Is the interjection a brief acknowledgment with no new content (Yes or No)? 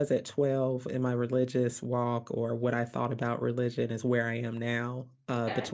Yes